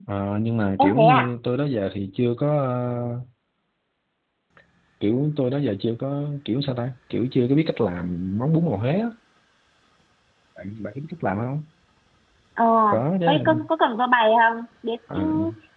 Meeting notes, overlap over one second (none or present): none